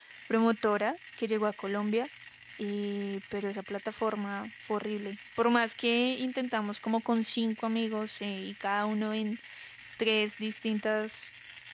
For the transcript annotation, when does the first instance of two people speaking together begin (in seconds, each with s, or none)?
none